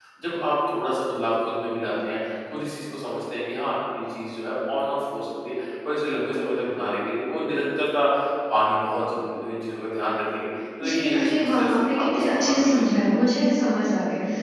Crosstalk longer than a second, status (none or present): present